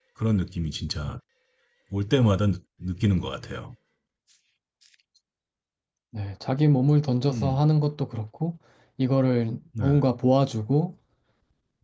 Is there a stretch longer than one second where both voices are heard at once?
No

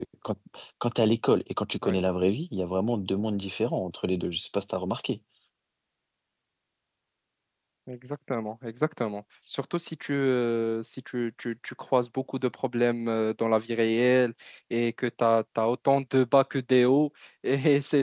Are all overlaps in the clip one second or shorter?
Yes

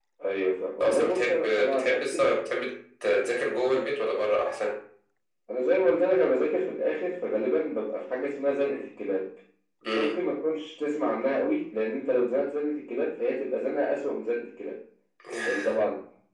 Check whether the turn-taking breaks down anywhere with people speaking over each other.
Yes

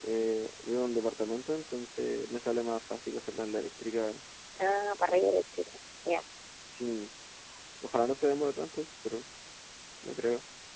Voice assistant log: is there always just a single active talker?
Yes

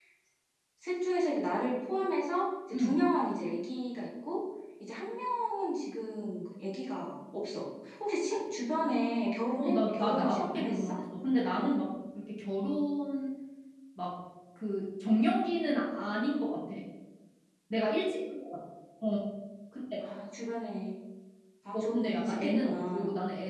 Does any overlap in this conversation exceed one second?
Yes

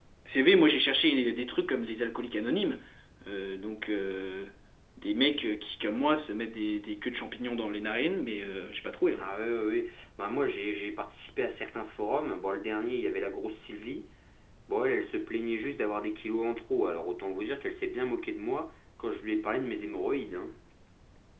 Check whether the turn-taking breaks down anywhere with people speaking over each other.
No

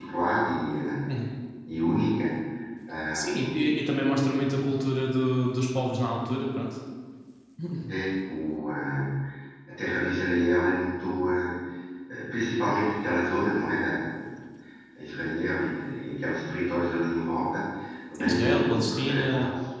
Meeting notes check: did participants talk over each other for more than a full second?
Yes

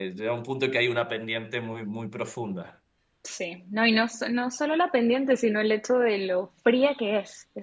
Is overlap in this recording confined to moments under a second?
Yes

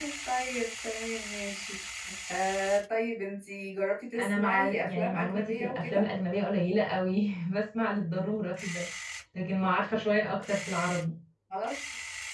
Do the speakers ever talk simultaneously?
Yes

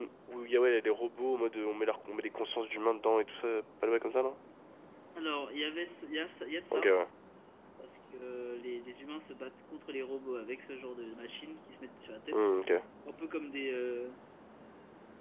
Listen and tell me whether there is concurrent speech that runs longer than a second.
No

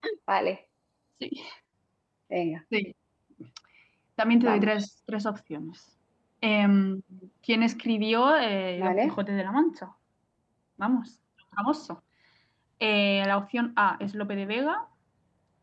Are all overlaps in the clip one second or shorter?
Yes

